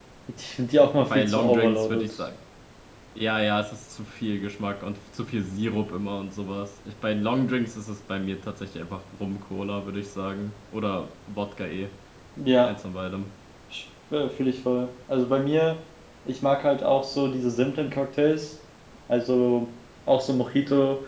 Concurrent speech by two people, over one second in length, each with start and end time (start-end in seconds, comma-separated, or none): 1.0-2.2